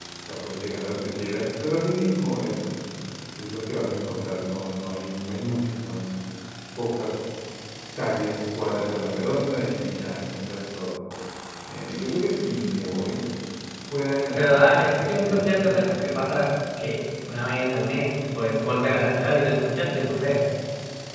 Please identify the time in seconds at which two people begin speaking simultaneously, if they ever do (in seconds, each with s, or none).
14.4 s